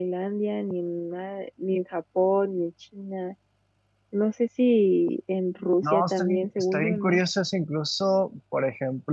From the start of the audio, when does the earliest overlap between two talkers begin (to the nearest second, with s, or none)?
6 s